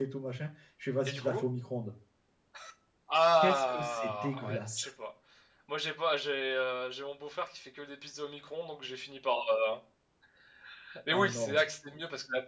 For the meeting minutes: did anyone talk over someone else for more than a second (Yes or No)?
Yes